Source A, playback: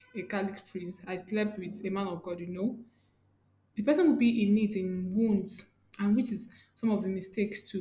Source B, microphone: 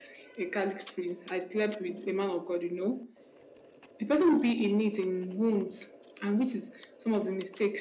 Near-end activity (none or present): none